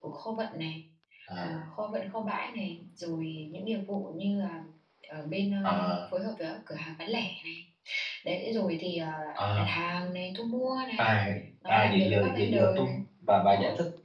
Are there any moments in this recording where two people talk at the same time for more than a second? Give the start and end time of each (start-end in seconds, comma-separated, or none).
11.7-13.0